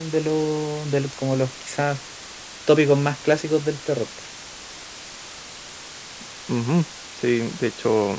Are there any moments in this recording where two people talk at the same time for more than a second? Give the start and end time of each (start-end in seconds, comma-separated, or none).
none